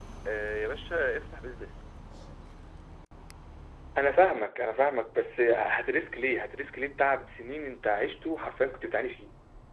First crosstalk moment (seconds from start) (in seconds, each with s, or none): none